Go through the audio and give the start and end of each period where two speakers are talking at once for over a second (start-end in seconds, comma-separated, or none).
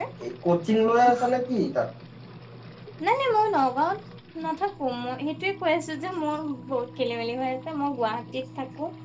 none